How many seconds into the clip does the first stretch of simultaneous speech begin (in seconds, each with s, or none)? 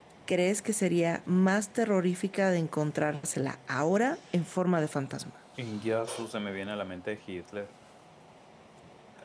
none